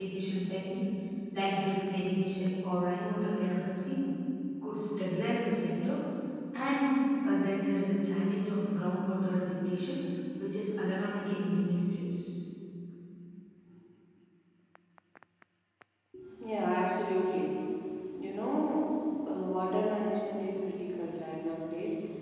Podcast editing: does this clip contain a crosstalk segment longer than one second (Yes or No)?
No